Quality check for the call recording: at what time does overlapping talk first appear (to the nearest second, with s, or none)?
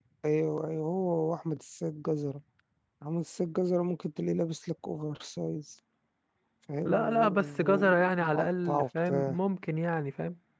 7 s